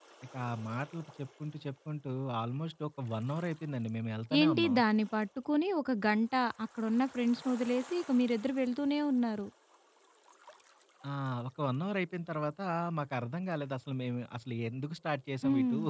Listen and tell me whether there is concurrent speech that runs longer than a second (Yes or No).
No